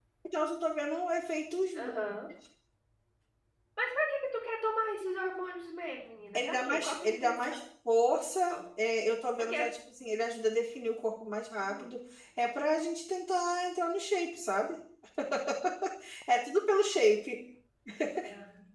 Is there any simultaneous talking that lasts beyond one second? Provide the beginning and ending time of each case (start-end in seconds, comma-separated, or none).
6.3-7.6